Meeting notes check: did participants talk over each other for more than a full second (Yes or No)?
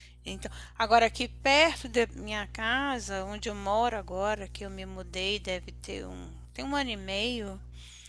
No